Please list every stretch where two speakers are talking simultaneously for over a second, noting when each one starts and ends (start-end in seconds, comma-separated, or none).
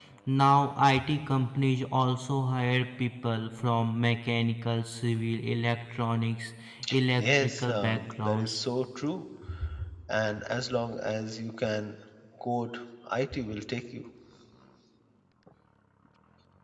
7.2-8.6